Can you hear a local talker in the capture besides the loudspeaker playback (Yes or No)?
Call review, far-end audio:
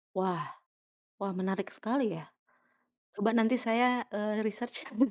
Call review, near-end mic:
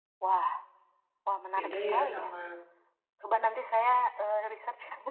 Yes